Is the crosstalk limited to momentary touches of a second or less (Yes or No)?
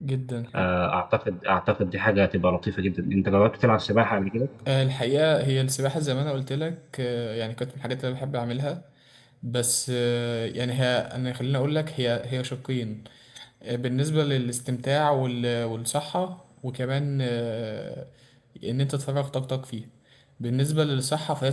Yes